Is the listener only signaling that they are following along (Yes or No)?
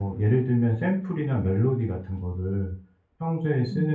Yes